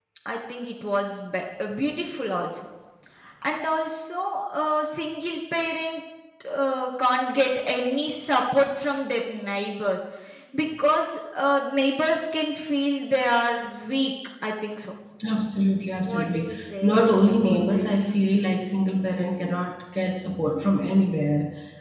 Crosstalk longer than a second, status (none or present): present